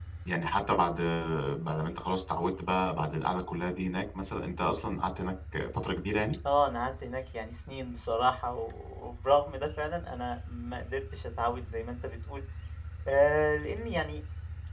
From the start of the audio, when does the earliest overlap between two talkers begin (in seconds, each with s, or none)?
none